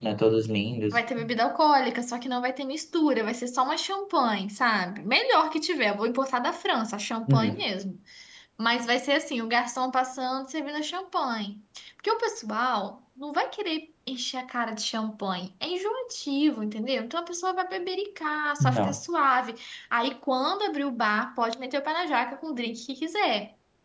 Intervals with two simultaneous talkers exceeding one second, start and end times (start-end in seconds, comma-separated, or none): none